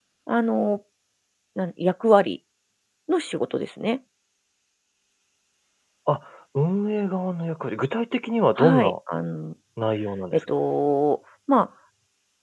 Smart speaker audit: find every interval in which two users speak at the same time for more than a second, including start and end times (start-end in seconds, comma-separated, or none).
none